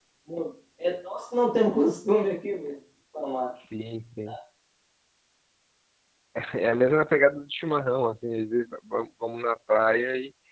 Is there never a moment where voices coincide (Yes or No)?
Yes